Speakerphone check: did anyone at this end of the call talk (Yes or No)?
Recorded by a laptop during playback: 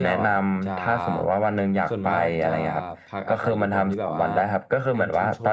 Yes